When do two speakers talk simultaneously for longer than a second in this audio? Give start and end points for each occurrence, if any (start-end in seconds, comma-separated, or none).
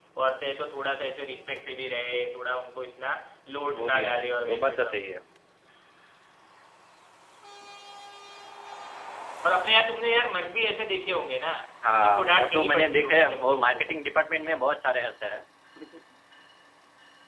3.8-5.0, 12.0-13.8